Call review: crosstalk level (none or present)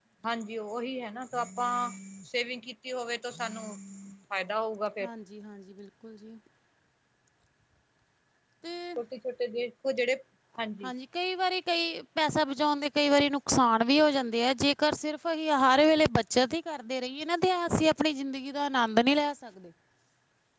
none